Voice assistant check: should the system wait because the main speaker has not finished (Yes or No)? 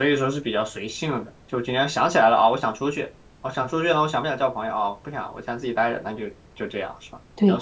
No